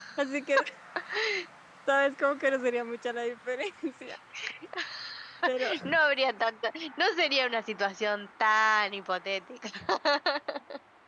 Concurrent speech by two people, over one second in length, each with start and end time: none

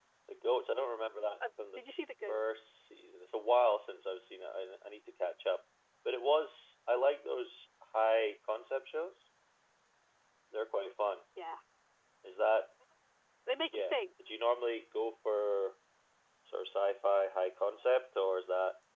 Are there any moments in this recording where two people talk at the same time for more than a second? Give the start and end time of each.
none

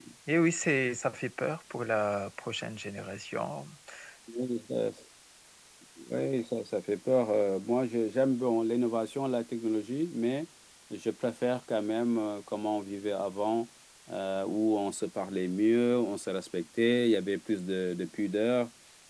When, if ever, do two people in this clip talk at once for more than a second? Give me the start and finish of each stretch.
none

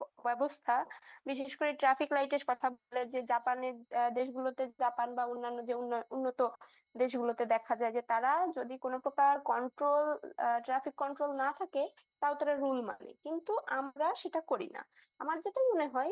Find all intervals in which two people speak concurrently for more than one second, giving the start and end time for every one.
none

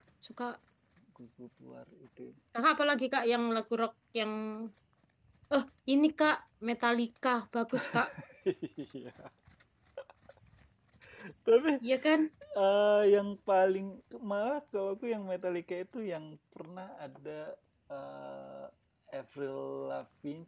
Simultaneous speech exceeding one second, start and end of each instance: none

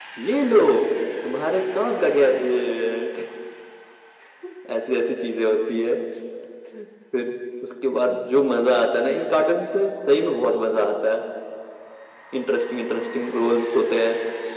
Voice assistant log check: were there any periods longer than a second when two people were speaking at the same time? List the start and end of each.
none

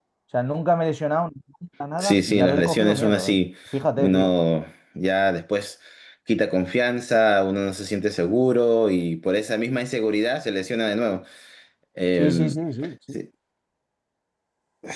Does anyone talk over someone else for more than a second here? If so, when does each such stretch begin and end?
2.0-3.4

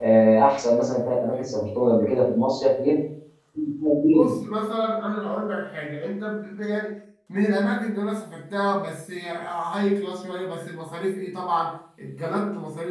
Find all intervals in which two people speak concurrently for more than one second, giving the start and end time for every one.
none

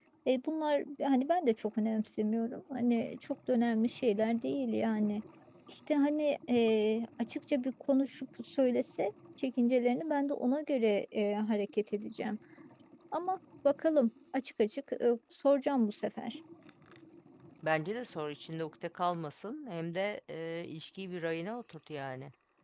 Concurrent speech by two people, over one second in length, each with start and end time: none

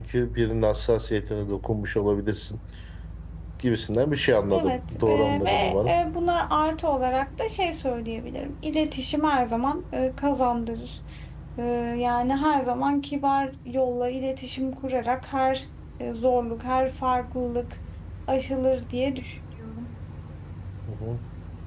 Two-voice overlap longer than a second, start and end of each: 4.5-6.0

